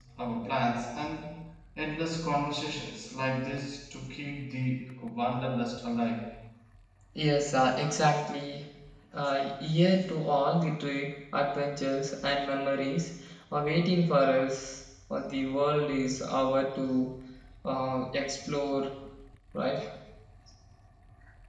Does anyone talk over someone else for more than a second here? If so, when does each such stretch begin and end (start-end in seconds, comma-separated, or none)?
none